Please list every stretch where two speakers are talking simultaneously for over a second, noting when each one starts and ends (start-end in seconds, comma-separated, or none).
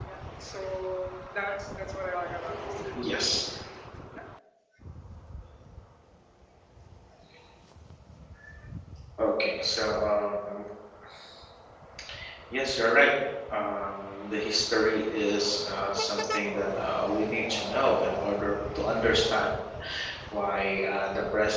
none